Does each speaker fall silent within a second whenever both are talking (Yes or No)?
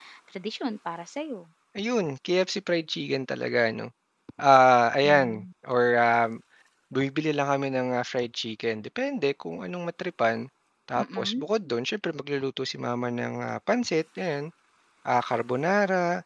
Yes